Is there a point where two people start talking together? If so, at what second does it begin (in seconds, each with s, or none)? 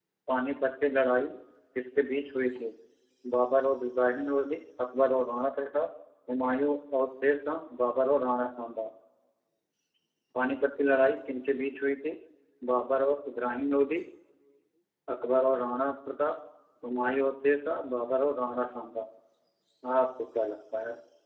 none